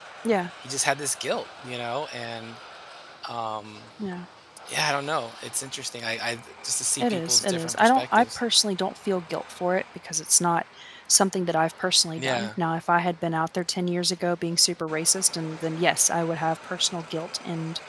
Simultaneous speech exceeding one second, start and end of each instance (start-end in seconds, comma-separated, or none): 7.0-8.4